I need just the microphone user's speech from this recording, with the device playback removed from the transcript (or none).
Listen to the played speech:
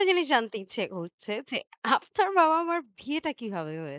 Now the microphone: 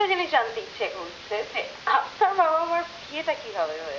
none